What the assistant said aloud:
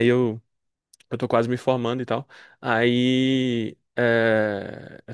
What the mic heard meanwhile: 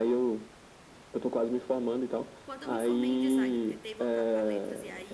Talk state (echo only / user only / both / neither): both